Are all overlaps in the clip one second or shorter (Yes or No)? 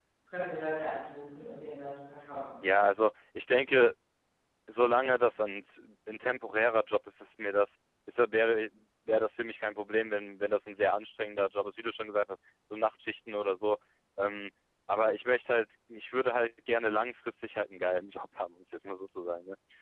Yes